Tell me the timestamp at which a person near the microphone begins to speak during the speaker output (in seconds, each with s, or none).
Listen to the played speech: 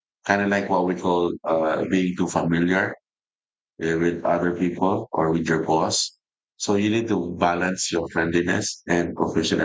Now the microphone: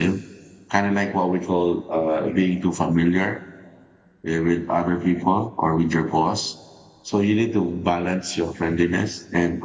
none